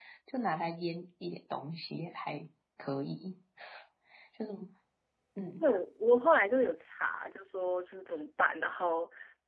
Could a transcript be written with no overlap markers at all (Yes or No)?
Yes